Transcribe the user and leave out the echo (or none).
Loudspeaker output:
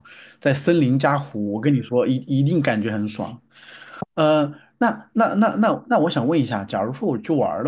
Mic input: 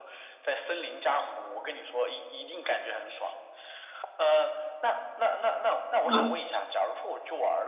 啊